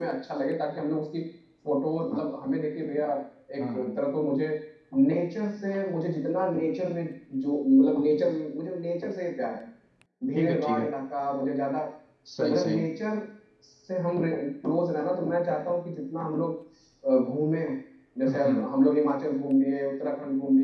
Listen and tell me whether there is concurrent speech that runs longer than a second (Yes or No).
No